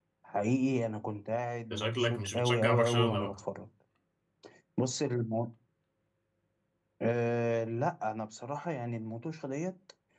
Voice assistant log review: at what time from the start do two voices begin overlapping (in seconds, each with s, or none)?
1.7 s